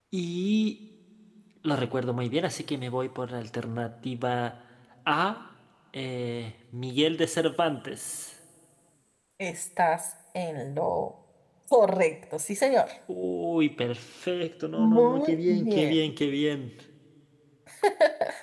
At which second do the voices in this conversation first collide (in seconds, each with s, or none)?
14.7 s